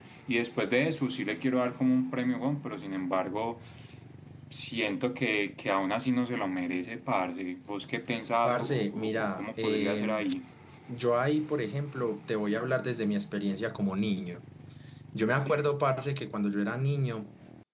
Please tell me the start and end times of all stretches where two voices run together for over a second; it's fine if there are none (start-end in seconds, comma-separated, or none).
8.4-10.2